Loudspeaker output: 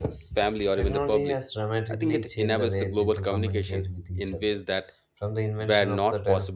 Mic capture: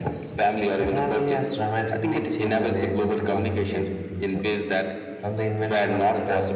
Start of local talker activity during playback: none

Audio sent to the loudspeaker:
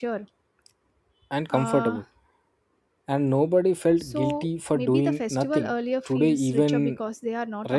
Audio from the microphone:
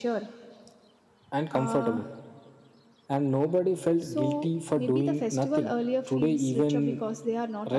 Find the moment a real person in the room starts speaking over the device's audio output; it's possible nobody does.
none

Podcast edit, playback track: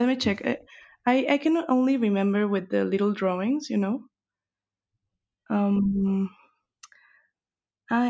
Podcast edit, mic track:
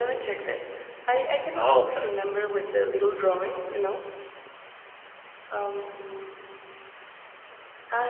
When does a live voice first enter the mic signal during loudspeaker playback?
1.5 s

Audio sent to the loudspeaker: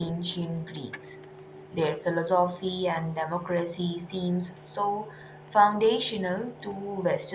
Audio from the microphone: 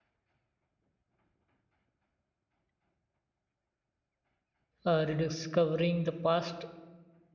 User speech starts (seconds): 4.8 s

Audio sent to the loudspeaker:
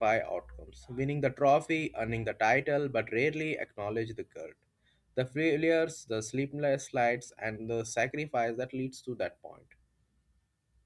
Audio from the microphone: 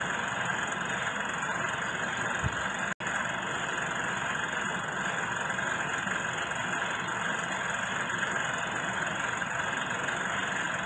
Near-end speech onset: none

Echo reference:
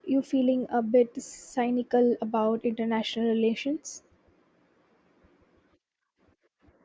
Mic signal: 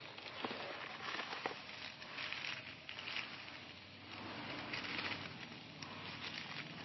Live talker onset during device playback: none

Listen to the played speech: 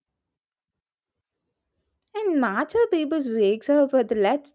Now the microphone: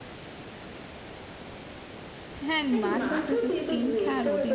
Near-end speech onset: 2.4 s

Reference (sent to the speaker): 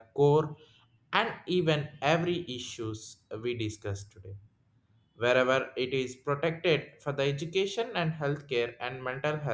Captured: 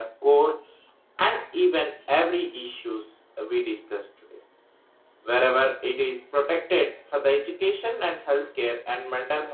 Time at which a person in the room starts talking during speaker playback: none

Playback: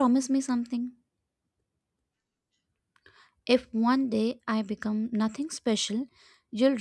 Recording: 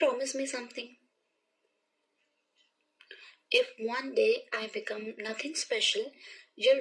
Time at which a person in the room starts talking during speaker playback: none

